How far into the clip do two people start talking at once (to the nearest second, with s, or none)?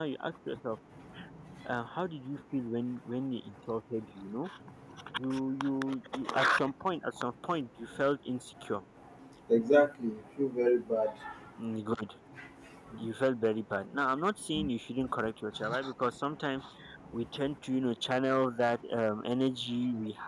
none